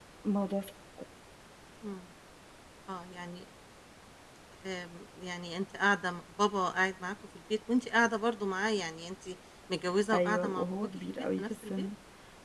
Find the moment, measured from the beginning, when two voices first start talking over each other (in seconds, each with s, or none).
10.1 s